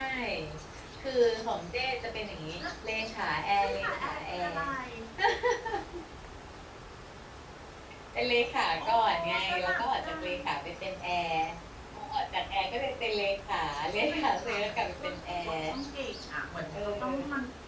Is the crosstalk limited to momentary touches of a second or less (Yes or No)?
No